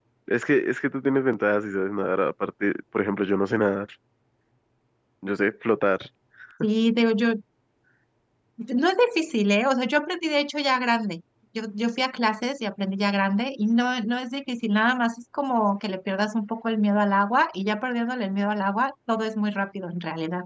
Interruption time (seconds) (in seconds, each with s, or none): none